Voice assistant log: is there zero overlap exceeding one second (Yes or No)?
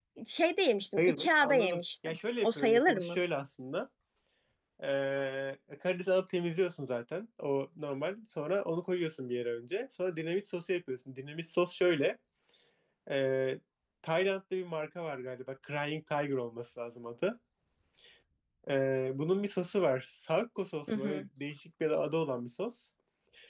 No